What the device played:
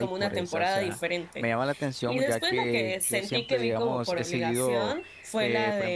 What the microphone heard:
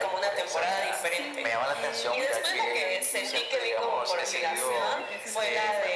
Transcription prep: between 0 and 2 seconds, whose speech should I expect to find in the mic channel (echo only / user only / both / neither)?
both